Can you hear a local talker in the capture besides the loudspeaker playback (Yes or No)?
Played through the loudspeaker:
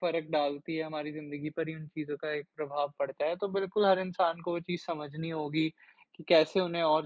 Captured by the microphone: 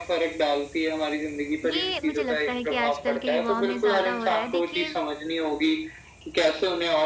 Yes